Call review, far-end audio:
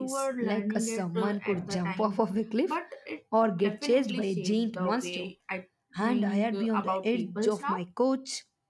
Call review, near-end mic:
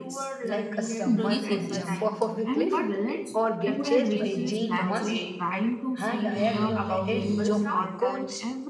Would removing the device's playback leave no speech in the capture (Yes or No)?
No